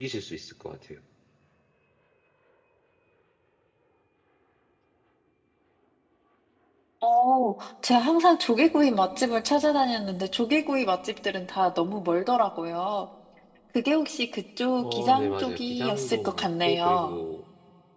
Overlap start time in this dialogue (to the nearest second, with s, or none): 15 s